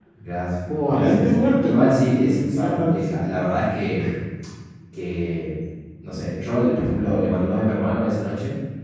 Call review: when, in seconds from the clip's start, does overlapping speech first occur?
0.9 s

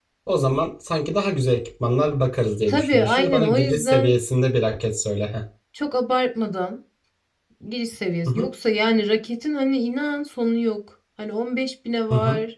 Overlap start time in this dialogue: 2.7 s

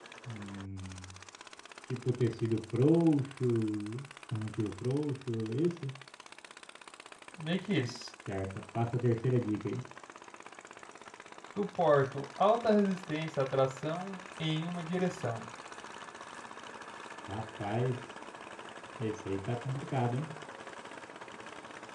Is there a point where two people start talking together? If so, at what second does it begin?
none

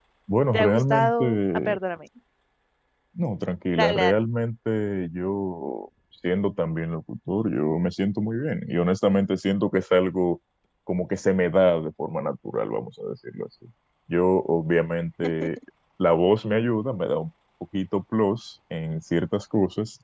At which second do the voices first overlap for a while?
0.5 s

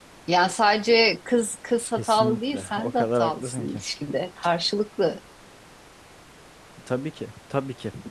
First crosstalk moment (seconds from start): 2.0 s

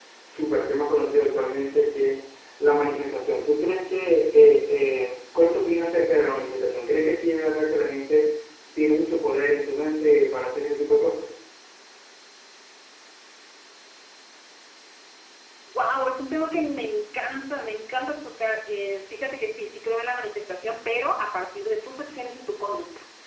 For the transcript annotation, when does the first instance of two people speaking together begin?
none

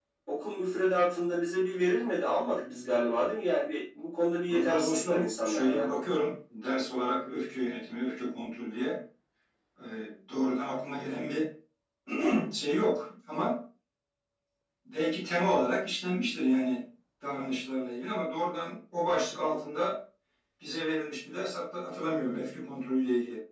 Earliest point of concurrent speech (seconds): 4.5 s

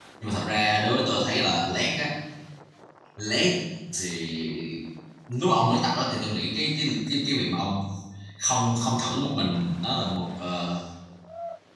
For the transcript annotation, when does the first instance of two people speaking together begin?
none

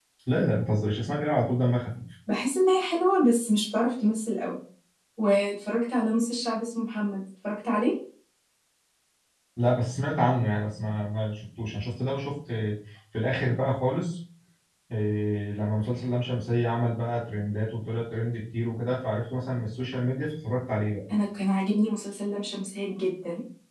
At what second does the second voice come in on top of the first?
none

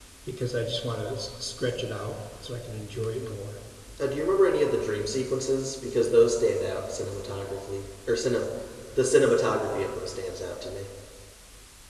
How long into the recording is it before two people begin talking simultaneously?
none

